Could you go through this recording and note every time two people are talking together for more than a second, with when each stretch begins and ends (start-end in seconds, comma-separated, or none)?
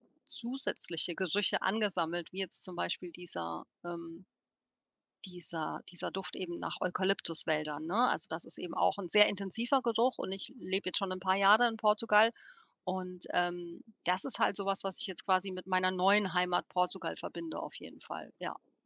none